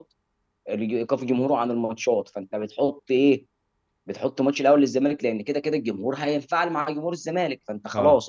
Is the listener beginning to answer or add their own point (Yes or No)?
No